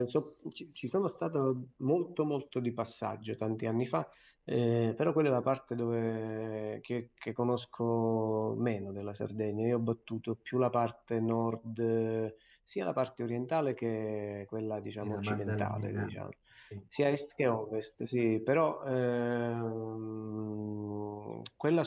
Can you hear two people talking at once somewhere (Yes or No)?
Yes